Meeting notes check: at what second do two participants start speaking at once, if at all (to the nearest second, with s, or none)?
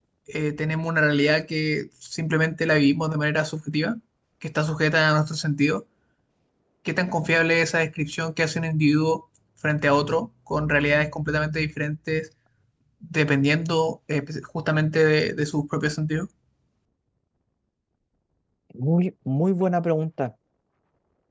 none